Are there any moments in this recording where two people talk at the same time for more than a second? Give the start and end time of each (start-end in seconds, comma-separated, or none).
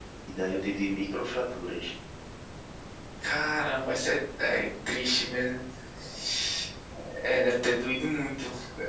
none